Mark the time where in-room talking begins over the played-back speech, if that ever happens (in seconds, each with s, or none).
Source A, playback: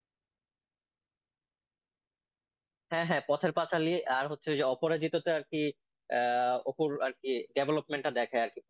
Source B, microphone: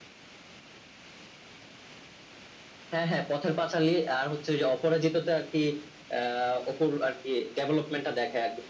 none